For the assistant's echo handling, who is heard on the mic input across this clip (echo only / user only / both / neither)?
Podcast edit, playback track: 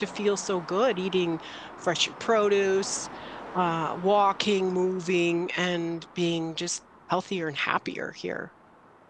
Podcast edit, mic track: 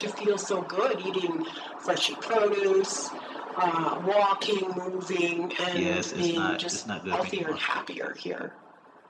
both